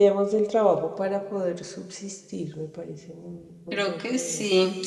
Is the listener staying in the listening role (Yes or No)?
No